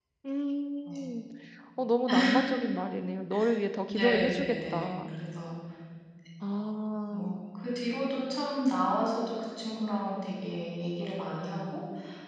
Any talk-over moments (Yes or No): Yes